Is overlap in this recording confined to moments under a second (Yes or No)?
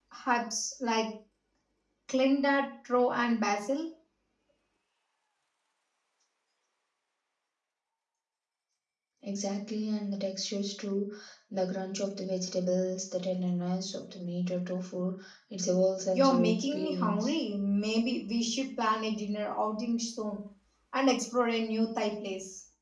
No